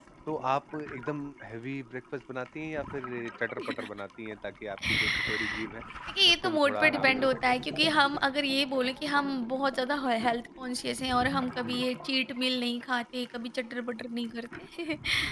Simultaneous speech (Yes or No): Yes